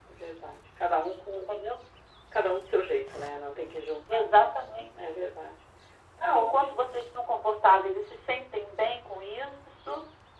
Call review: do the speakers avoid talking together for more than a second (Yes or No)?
Yes